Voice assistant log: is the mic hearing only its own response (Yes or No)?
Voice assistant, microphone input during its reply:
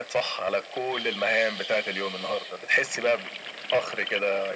Yes